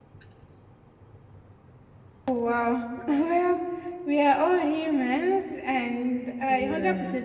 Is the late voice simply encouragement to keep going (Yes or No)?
Yes